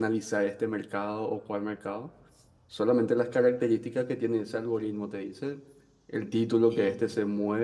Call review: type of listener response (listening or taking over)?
listening